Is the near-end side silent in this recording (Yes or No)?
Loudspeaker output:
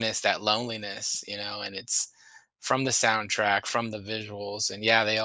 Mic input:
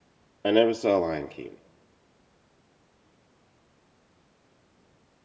No